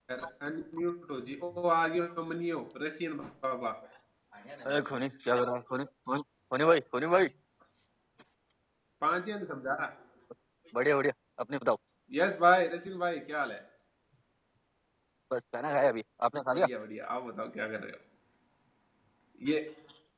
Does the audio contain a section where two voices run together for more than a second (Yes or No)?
No